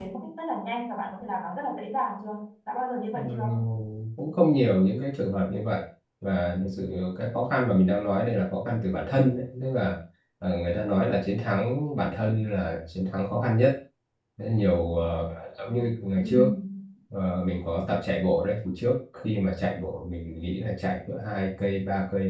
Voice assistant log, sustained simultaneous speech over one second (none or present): none